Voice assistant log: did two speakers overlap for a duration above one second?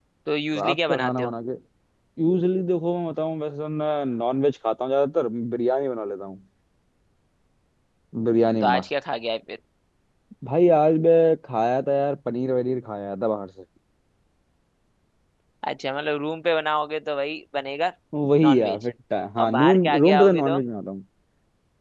Yes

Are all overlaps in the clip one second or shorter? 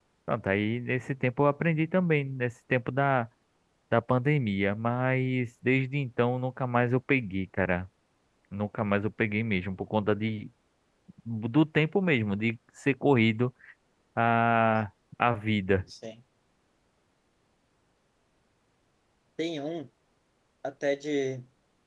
Yes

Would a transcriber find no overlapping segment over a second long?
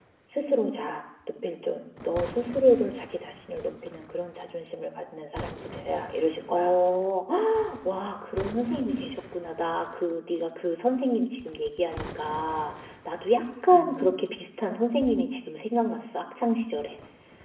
Yes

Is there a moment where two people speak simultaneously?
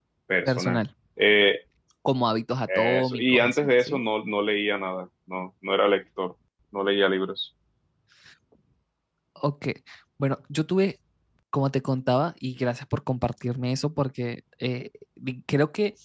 Yes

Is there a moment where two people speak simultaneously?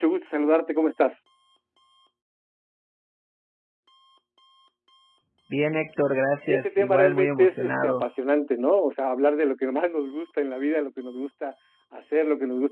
Yes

